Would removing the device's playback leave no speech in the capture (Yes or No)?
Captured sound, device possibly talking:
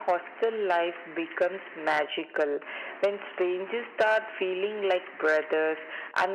Yes